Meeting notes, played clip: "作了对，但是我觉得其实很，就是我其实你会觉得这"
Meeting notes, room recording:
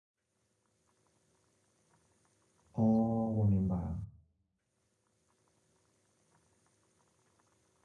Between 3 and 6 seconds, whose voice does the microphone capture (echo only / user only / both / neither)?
user only